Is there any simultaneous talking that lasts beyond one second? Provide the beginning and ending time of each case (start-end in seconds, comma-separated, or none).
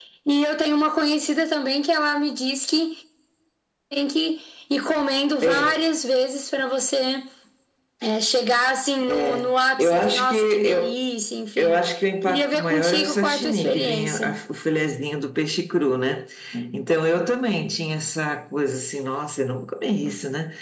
9.0-11.0, 12.3-14.4